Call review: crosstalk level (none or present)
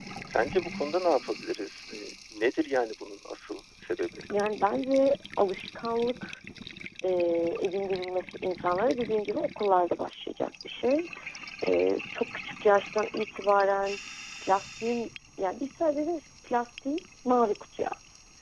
none